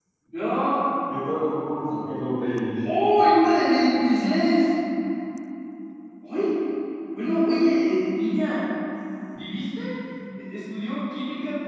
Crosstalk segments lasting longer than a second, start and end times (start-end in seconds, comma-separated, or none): none